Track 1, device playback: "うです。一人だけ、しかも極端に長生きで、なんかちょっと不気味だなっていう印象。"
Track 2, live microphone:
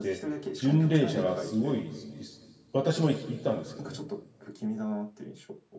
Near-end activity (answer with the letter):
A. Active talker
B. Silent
A